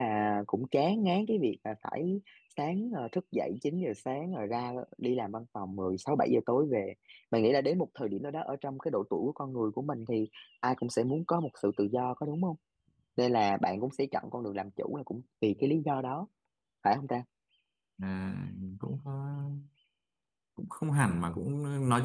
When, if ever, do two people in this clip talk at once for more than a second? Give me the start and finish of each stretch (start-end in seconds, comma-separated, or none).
none